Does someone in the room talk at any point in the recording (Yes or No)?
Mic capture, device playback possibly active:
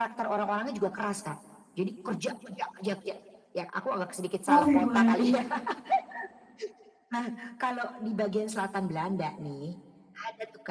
Yes